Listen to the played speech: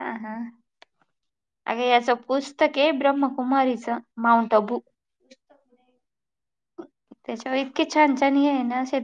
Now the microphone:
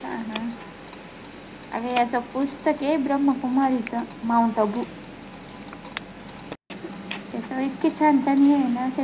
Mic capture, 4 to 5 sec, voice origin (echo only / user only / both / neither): echo only